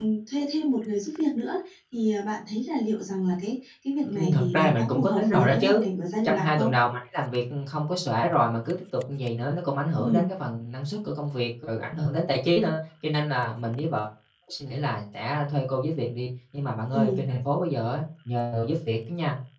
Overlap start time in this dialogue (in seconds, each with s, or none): 4.0 s